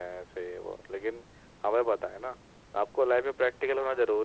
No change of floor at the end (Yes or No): Yes